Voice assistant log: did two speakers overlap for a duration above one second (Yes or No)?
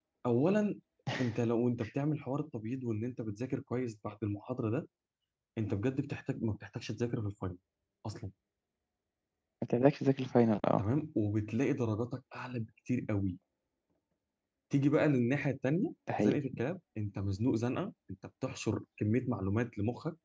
No